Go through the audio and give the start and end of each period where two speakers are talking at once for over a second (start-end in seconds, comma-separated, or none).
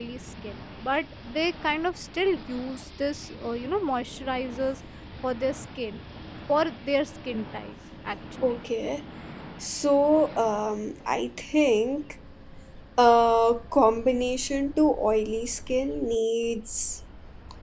none